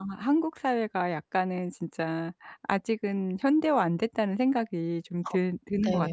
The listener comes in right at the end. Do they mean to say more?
Yes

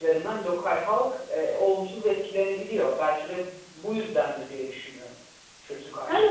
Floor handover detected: Yes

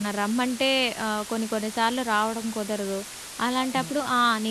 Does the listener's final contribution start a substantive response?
No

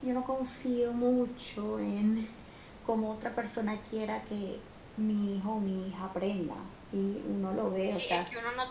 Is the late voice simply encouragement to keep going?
No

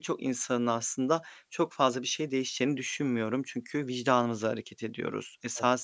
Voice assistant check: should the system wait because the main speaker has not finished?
Yes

